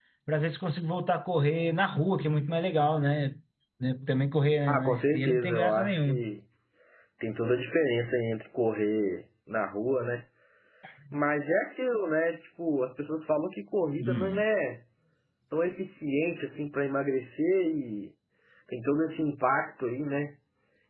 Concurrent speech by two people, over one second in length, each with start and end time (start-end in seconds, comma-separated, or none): 4.7-6.2